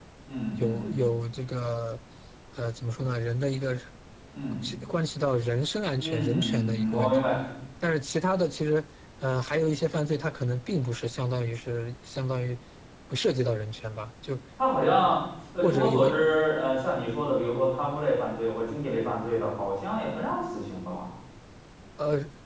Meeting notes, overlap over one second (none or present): present